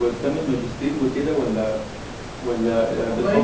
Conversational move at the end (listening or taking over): taking over